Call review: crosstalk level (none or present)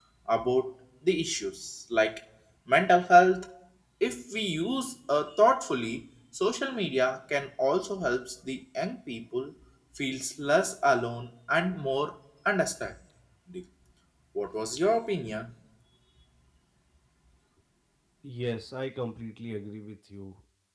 none